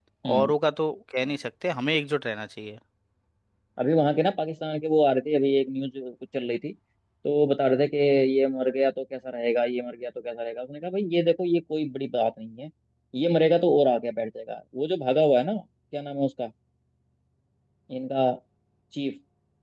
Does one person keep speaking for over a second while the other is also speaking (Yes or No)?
No